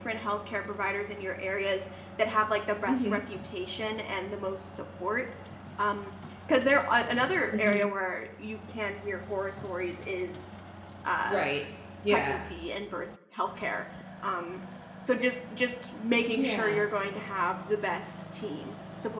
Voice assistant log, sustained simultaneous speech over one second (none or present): none